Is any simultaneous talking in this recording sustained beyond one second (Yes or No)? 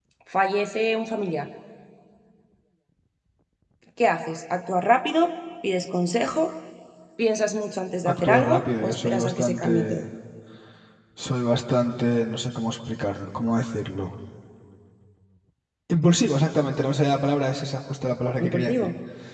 Yes